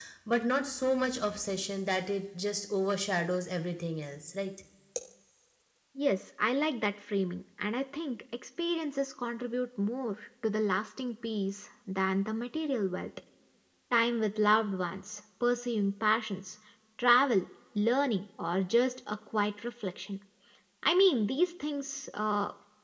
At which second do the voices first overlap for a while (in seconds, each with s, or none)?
none